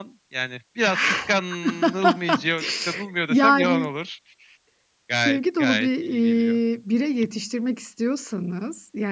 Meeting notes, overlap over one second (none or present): present